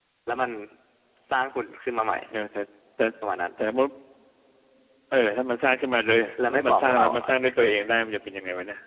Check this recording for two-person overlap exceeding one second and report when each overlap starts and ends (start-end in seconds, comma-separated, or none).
6.4-7.7